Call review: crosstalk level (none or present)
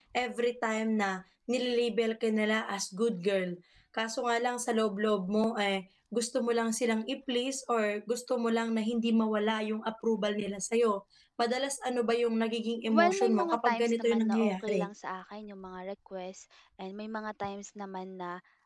present